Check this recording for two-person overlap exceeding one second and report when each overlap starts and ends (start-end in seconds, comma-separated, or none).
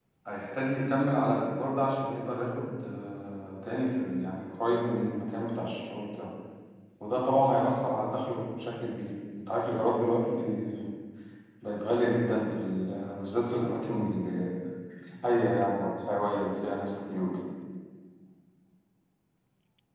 none